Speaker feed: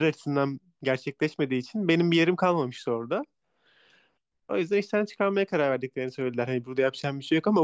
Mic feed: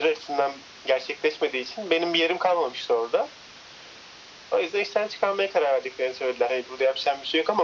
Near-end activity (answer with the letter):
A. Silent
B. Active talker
A